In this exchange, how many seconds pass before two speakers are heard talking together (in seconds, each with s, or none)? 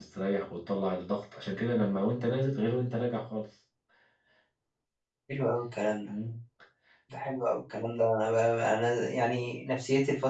none